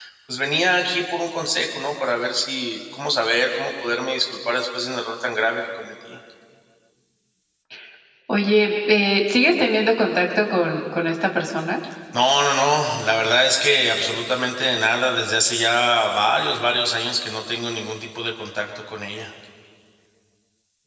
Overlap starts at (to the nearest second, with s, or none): none